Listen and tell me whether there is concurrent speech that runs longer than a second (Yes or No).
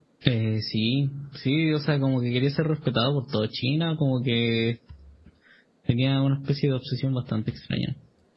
No